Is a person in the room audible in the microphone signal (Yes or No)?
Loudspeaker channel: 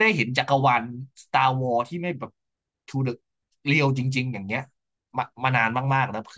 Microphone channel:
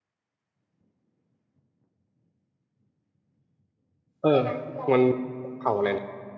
Yes